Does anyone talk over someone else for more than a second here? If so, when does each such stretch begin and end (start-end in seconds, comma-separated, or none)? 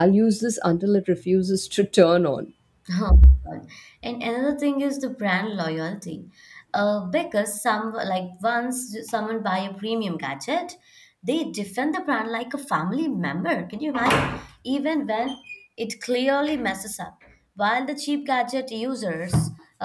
none